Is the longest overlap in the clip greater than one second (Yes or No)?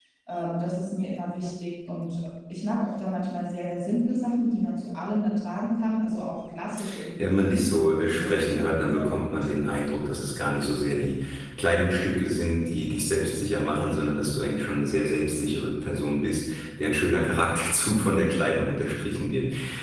Yes